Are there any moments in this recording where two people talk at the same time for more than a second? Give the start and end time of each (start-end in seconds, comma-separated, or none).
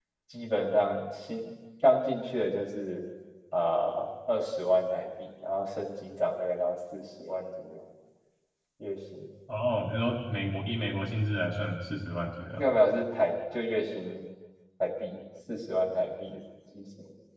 none